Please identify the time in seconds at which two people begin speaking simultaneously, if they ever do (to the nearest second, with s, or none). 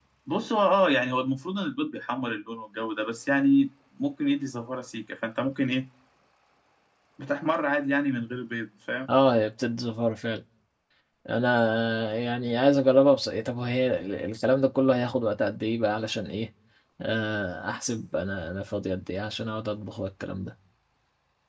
none